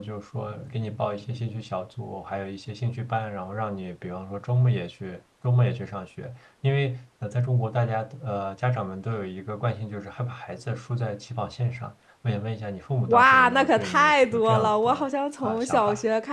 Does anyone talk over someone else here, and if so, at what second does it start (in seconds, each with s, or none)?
13.1 s